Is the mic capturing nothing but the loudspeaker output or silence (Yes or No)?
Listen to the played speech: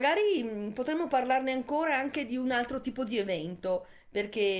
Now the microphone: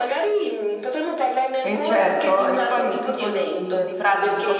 No